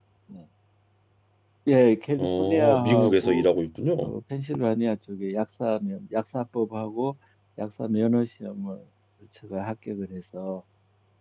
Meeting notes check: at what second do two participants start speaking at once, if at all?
2 s

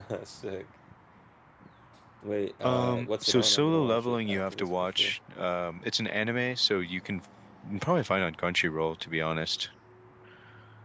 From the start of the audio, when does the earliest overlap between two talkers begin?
3 s

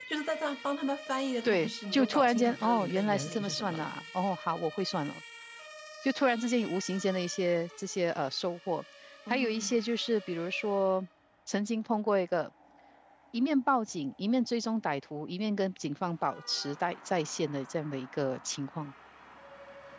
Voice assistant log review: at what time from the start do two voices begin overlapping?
1 s

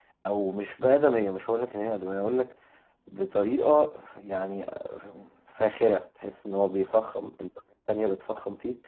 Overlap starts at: none

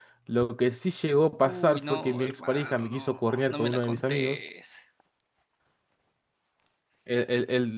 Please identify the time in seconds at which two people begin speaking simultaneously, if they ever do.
1 s

